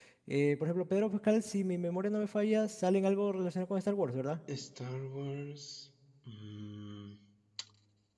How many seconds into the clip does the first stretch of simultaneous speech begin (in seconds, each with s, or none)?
none